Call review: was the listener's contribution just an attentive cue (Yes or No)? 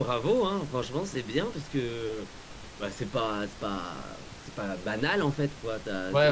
No